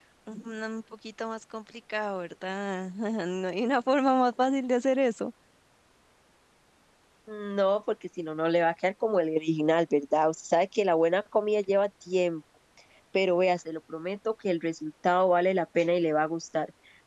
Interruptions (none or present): none